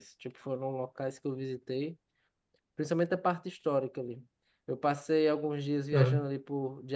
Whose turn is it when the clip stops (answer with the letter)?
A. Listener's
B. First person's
B